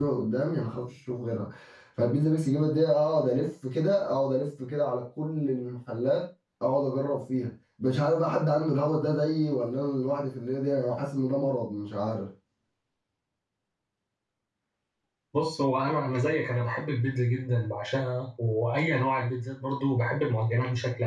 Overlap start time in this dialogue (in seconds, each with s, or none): none